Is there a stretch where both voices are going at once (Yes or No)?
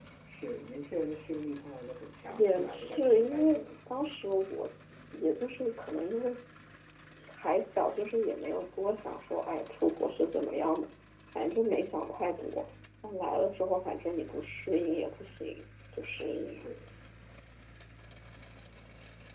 Yes